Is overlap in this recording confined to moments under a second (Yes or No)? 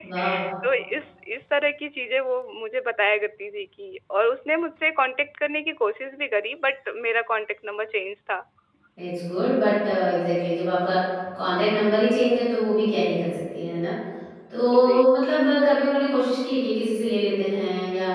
Yes